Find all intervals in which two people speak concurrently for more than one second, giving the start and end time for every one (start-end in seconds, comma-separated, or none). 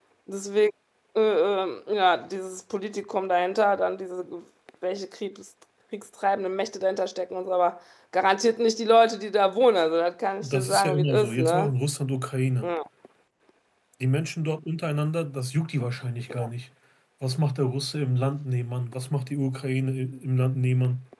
10.4-11.7